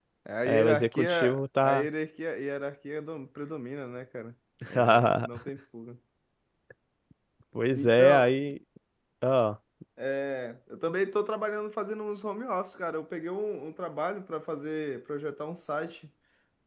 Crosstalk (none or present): present